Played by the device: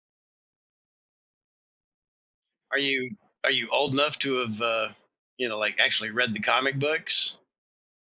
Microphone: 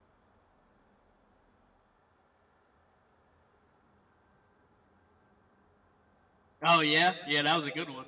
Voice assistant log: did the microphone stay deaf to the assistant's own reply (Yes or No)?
Yes